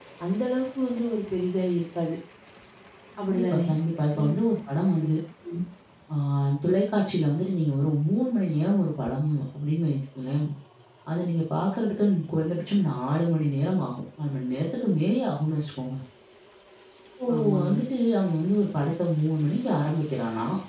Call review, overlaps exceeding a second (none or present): none